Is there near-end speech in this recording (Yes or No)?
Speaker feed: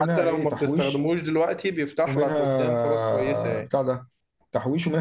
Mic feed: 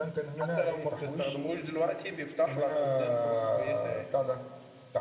No